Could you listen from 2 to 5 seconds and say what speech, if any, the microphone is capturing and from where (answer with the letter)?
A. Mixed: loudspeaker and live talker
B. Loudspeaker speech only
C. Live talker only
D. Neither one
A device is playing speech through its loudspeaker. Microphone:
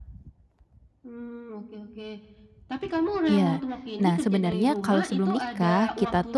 A